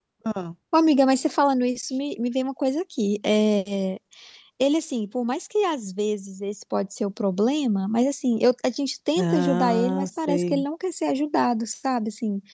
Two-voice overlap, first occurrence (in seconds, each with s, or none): 9.2 s